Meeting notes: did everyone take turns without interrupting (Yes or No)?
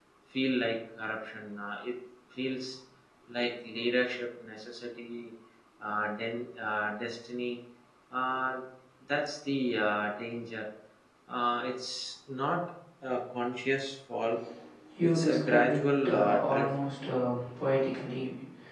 No